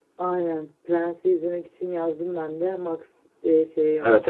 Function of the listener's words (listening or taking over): taking over